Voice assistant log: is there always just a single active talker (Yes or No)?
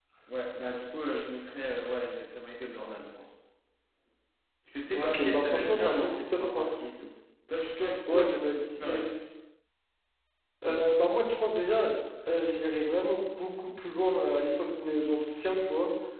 No